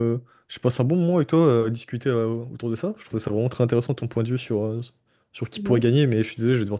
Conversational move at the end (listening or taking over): listening